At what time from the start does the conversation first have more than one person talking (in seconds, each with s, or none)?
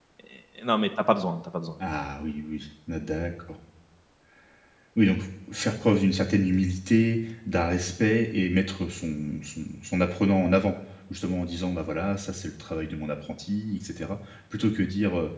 none